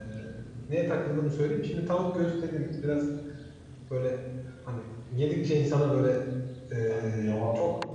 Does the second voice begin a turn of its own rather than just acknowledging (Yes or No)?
No